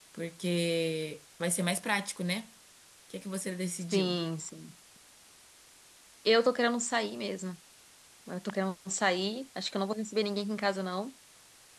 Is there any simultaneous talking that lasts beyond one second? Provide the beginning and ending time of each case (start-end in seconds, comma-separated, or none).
none